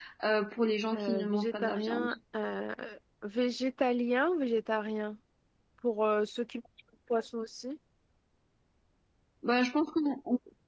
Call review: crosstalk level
present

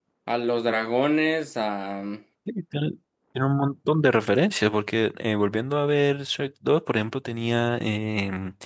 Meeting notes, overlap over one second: none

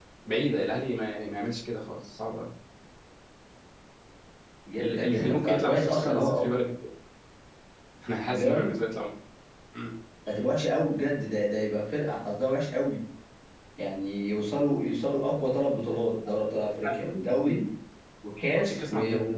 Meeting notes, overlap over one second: present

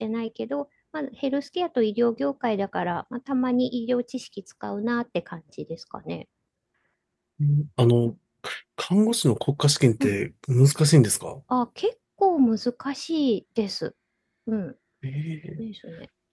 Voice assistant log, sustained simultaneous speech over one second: none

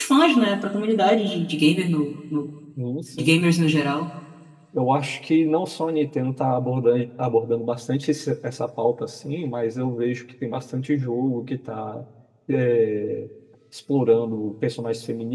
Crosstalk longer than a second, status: none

